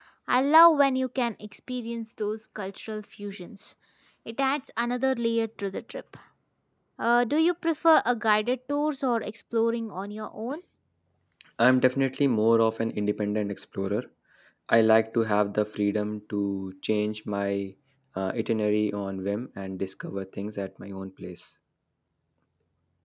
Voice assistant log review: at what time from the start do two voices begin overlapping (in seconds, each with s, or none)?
none